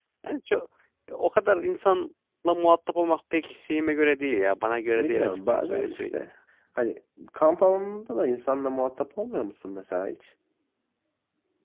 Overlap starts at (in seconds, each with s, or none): 5.0 s